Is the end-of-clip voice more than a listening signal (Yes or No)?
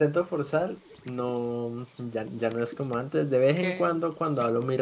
No